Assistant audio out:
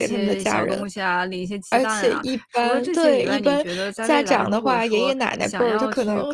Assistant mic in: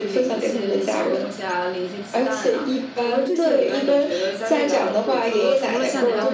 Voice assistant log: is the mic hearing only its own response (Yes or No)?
No